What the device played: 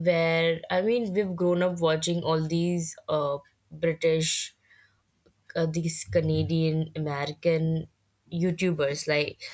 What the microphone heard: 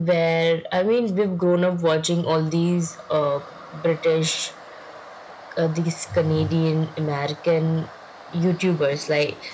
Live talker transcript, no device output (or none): none